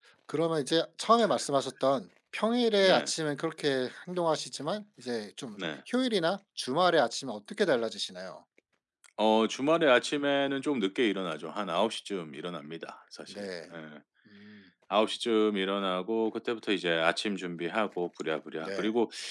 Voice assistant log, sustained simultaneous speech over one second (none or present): none